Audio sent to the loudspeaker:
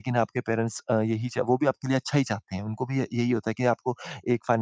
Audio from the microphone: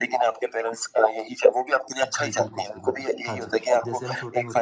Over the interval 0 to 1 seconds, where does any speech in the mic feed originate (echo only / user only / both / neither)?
echo only